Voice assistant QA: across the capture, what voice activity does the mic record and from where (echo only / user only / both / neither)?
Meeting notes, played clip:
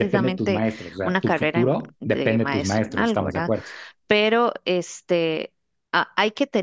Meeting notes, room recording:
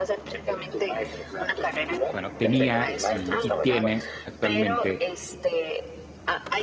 both